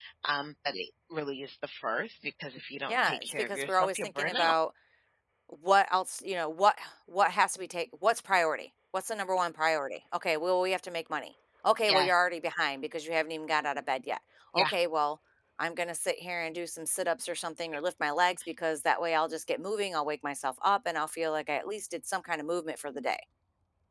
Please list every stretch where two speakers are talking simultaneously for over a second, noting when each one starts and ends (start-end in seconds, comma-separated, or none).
2.9-4.6